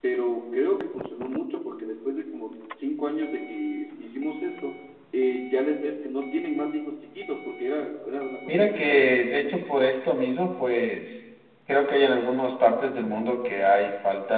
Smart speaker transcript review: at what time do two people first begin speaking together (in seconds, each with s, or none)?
8.5 s